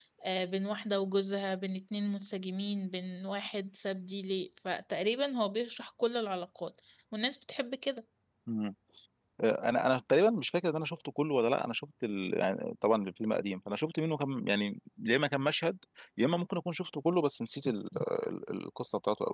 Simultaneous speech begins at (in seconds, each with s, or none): none